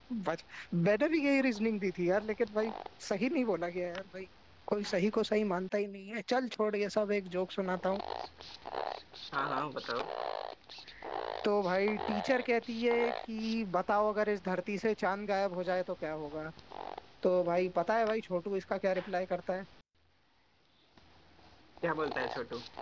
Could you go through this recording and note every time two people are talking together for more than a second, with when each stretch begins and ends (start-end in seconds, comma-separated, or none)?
none